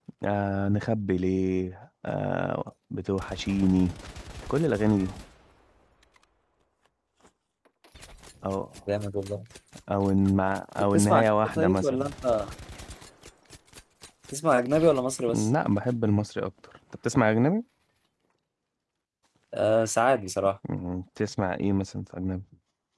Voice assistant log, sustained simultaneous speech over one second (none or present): present